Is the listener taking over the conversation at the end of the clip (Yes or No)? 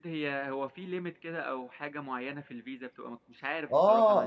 Yes